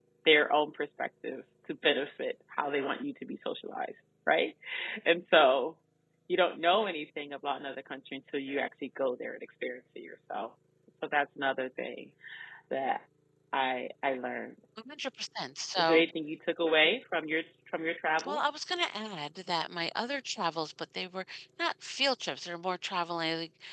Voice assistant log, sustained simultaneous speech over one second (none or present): none